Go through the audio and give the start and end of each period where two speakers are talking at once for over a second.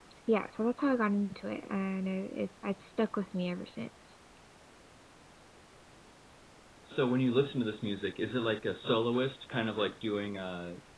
none

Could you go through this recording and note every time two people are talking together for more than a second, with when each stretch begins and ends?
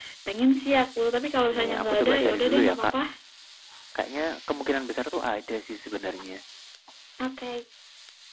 1.6-2.9

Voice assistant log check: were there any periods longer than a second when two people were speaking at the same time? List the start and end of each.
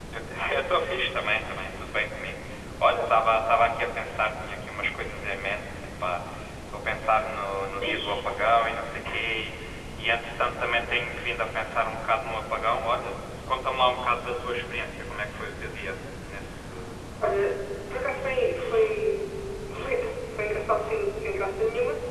none

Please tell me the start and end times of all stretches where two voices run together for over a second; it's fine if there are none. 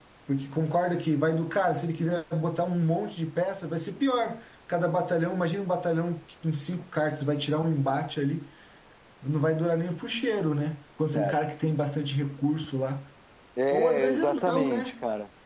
13.7-14.9

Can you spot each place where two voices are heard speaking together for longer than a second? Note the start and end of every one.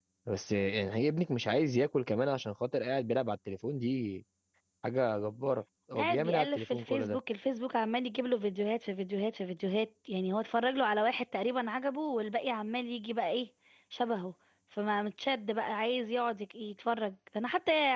6.0-7.2

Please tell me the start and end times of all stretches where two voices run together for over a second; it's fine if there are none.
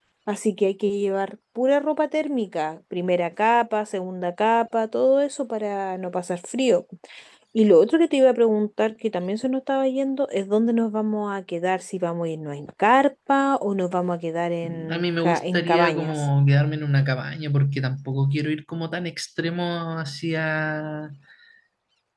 14.6-16.2

